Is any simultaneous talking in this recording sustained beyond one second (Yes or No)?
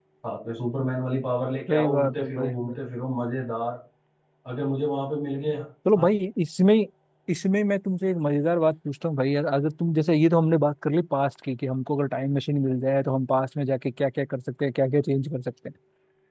Yes